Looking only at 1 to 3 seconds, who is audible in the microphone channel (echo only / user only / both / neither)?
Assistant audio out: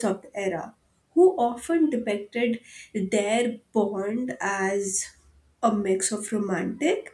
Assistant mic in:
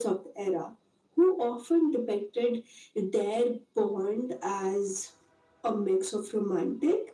echo only